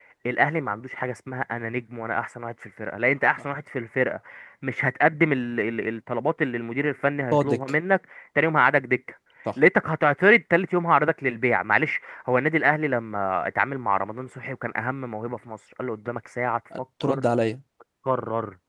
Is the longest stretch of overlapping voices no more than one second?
Yes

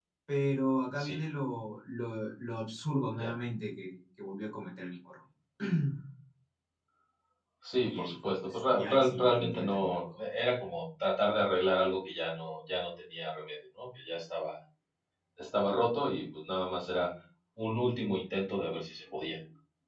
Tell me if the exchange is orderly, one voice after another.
No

